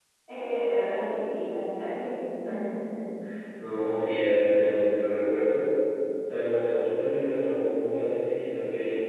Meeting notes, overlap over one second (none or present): none